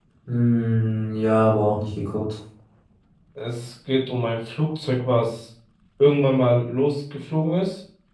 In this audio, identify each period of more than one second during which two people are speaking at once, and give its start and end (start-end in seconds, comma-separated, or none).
none